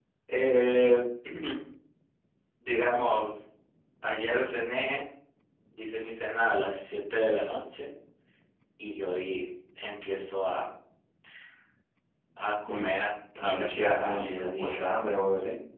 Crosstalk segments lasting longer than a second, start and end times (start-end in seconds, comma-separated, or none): 13.4-14.8